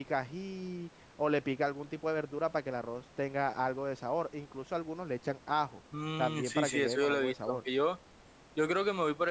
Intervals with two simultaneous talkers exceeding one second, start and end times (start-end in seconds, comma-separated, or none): 6.2-7.6